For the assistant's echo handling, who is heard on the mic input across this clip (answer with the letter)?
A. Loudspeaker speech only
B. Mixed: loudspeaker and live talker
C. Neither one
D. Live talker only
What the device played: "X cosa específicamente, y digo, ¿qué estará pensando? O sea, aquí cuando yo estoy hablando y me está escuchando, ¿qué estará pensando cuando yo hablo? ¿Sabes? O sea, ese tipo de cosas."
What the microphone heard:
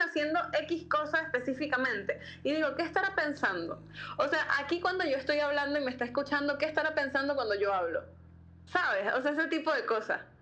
A